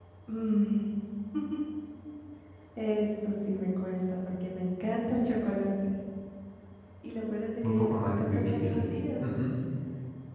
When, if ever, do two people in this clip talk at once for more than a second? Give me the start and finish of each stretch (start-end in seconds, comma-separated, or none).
7.5-8.8